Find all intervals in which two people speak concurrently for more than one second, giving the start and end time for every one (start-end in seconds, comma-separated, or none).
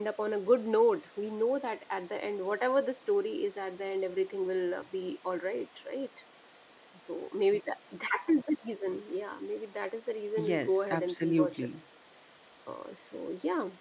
10.4-11.7